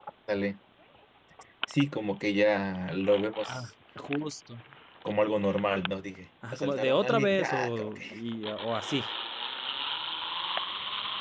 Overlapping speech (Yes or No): Yes